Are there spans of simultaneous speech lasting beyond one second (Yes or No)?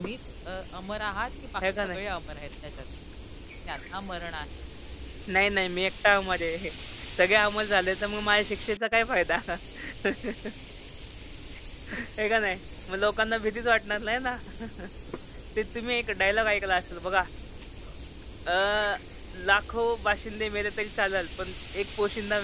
No